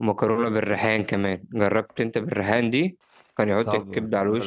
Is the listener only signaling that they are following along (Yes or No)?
No